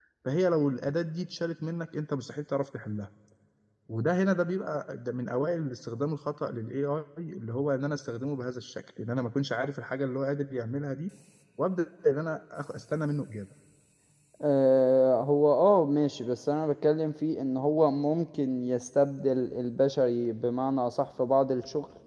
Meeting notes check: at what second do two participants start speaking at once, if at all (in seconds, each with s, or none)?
none